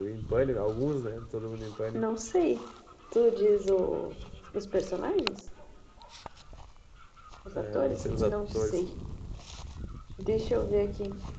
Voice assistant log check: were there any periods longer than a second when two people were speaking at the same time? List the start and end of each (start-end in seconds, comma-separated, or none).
7.5-8.8